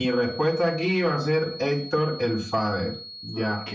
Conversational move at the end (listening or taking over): taking over